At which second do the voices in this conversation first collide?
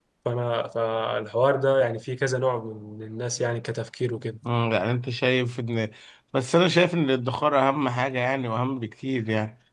none

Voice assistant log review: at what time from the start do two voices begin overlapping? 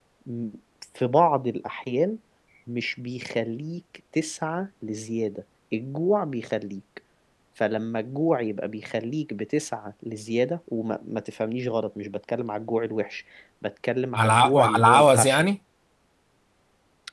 14.2 s

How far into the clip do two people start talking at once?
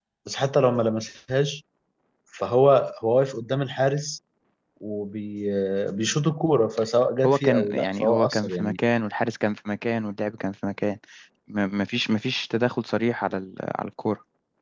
7.2 s

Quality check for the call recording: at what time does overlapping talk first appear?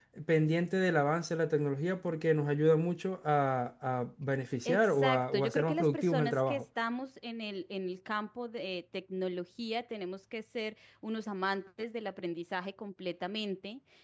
4.6 s

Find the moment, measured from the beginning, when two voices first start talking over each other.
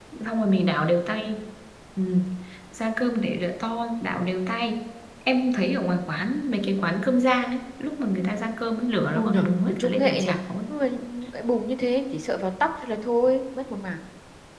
9.1 s

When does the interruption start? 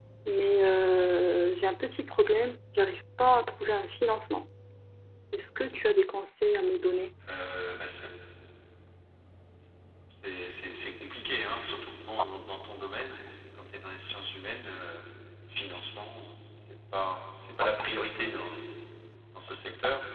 none

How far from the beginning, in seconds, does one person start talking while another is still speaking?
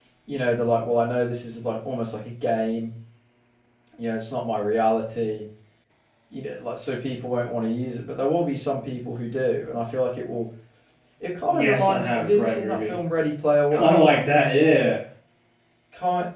11.5 s

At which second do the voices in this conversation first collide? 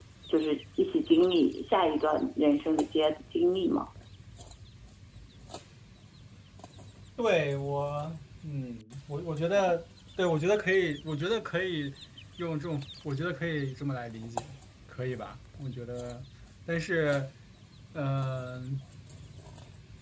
none

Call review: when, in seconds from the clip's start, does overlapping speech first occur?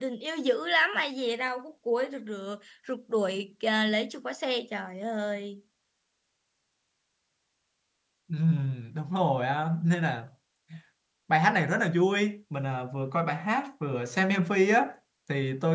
none

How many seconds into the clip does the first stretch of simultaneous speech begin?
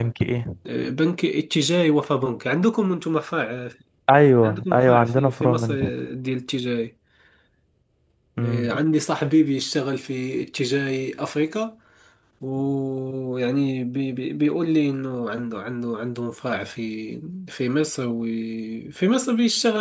4.4 s

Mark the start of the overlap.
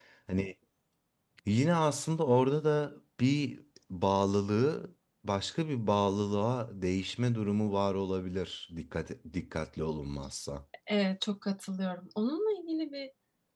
none

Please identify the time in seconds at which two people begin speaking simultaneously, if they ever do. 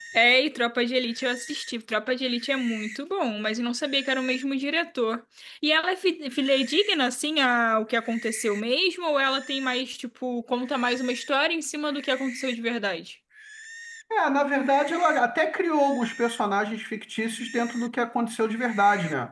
none

